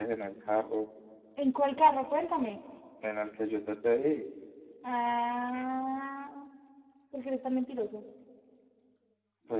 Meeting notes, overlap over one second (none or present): none